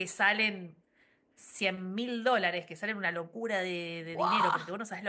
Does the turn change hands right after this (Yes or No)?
No